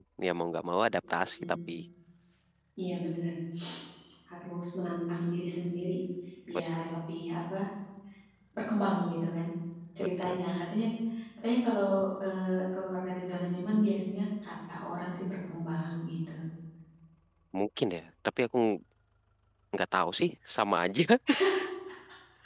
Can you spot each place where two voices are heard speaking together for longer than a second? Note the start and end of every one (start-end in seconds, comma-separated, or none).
none